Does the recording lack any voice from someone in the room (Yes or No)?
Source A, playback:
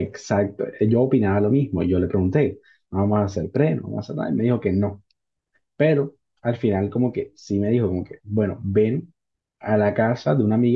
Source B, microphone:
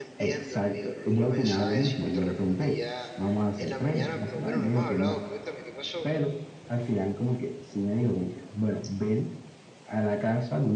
No